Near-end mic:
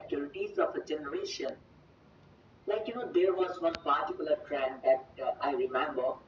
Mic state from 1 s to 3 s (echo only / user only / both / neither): echo only